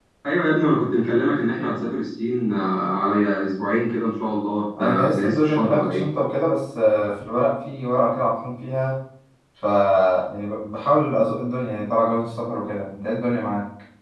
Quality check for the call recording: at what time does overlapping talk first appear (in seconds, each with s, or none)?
4.8 s